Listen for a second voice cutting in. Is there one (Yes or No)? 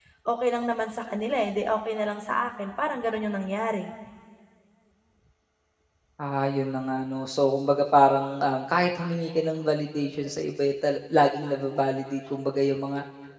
No